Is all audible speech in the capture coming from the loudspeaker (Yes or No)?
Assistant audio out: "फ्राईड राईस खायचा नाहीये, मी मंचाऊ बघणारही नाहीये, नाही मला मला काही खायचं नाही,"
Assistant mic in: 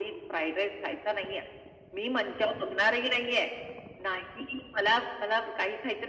Yes